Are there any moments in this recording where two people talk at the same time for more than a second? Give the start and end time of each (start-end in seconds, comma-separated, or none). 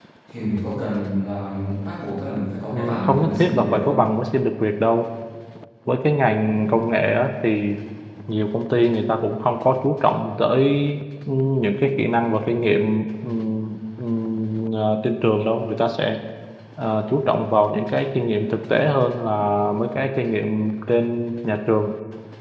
2.7-4.1